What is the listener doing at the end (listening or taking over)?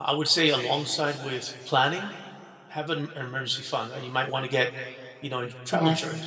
listening